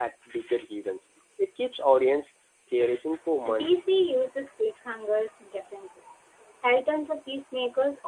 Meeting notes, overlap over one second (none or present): none